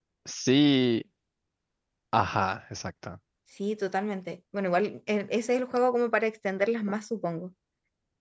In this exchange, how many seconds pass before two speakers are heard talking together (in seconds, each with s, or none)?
none